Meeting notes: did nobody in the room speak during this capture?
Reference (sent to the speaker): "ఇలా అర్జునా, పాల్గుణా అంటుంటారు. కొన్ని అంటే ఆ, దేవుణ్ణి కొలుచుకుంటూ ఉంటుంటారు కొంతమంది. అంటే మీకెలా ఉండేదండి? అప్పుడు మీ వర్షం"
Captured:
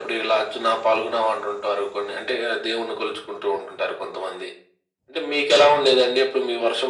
Yes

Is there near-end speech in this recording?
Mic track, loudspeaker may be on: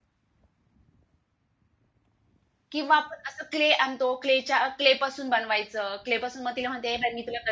Yes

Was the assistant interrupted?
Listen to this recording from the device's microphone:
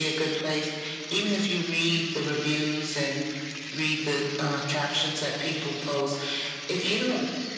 No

